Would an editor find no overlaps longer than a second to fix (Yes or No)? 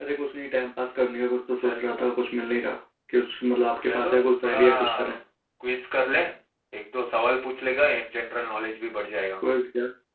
No